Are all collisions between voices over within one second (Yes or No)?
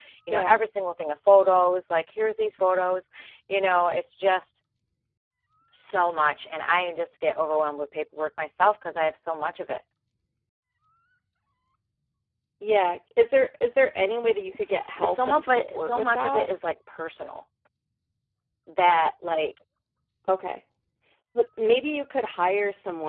No